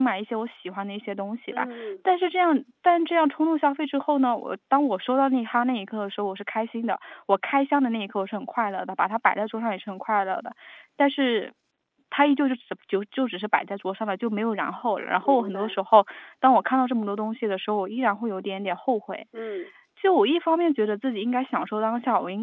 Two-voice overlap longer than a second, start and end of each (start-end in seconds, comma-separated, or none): none